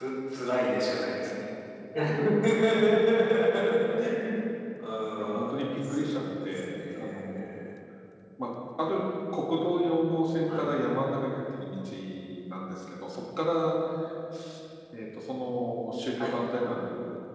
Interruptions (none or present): present